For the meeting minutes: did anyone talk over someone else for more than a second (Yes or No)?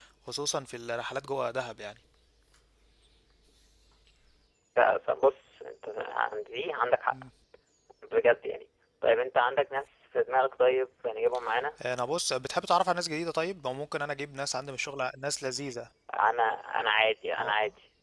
No